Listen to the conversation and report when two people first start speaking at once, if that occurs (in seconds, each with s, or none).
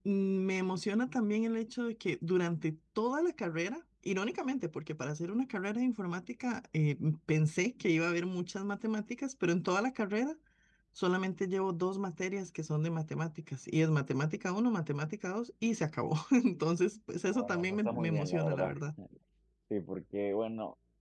17.3 s